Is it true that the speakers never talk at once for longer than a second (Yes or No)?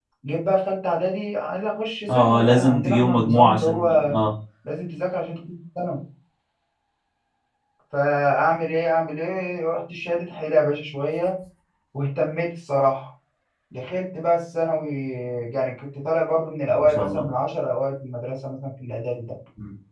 No